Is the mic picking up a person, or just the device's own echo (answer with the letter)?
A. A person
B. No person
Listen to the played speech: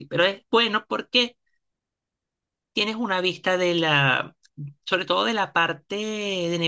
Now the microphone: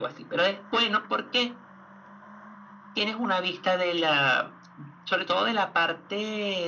B